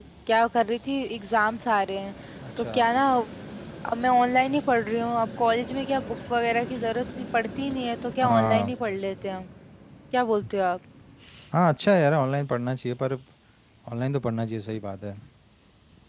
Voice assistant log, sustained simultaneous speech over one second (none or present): none